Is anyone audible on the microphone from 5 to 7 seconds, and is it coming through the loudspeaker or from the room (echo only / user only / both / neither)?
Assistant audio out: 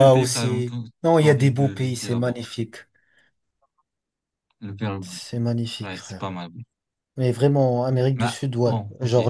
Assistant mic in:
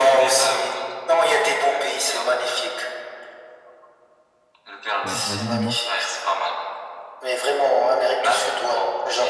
both